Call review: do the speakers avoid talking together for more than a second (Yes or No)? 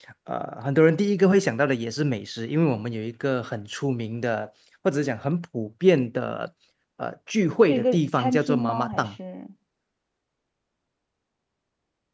No